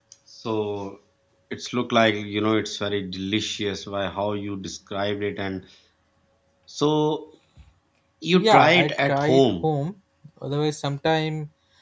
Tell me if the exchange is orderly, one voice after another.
No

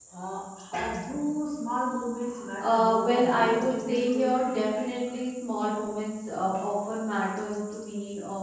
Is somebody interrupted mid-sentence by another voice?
Yes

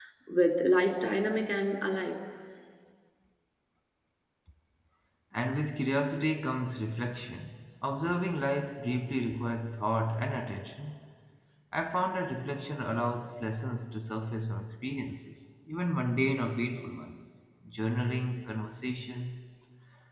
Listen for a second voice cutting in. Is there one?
No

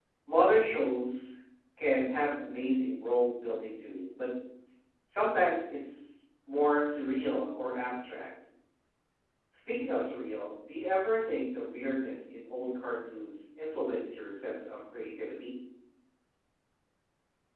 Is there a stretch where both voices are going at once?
No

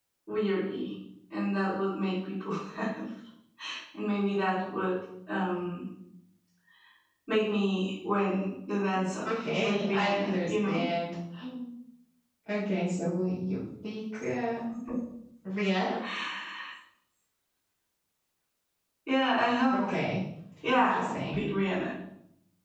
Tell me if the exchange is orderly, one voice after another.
No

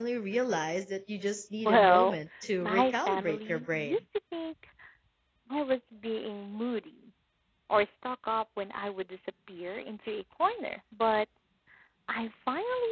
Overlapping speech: Yes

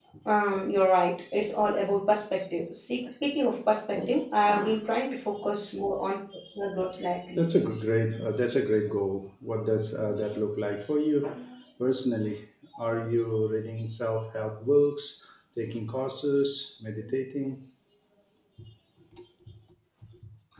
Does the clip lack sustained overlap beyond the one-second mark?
Yes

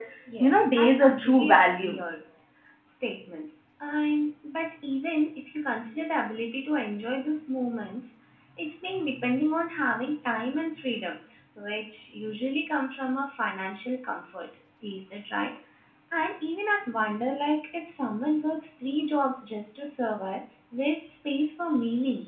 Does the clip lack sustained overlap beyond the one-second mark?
No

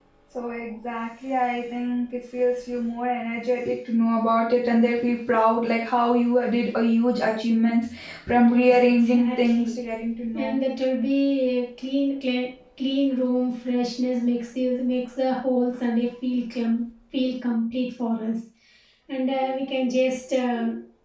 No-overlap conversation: No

